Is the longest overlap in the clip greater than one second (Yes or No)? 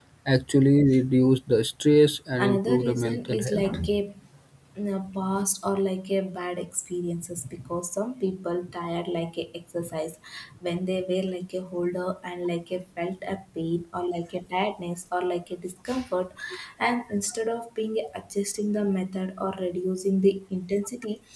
Yes